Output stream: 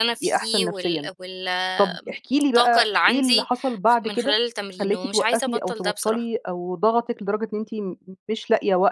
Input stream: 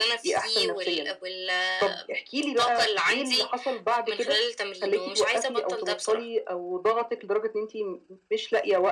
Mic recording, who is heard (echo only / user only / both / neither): echo only